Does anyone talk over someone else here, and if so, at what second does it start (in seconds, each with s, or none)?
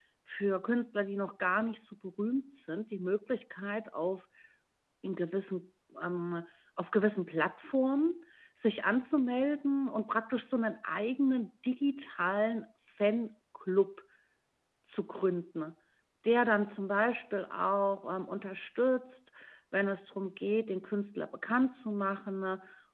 none